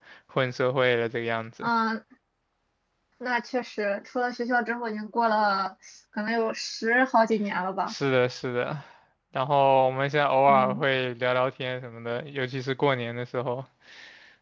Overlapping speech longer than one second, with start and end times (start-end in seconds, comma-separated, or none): none